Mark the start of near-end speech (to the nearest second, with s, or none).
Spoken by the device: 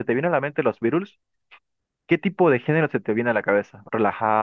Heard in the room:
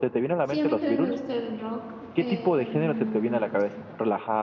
0 s